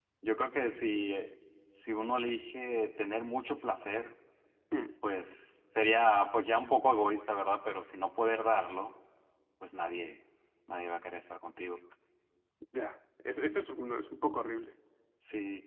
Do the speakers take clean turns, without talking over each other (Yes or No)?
Yes